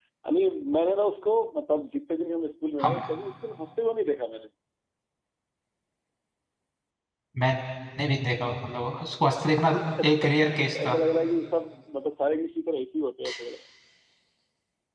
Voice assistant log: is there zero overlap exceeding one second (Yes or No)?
No